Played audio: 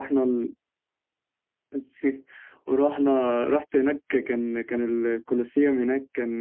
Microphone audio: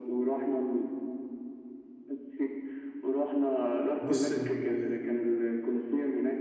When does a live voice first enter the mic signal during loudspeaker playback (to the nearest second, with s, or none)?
4 s